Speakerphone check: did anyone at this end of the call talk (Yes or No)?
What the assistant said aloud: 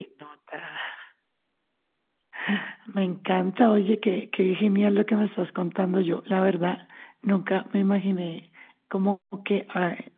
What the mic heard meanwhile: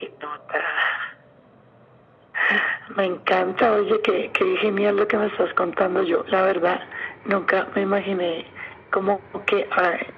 No